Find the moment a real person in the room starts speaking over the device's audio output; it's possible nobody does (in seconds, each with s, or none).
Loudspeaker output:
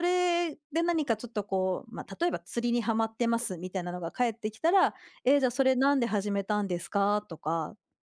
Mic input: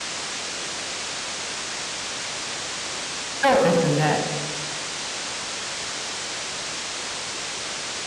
3.4 s